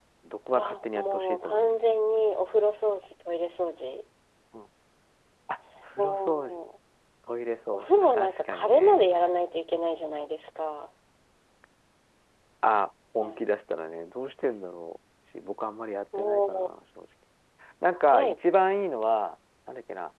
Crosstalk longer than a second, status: present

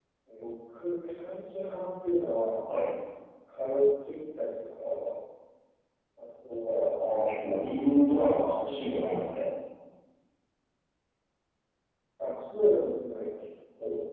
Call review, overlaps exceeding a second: present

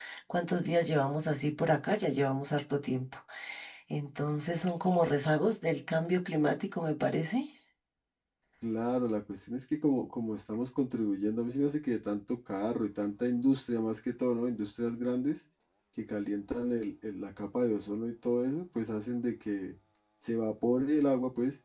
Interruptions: none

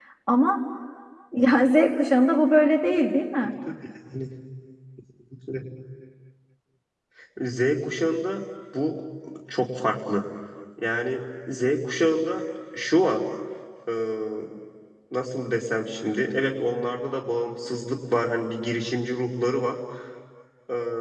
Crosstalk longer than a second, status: none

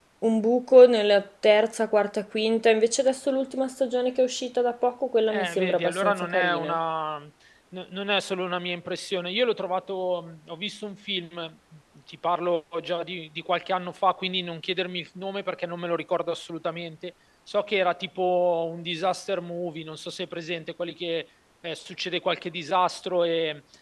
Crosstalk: present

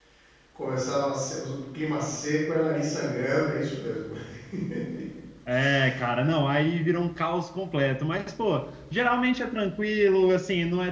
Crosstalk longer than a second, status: none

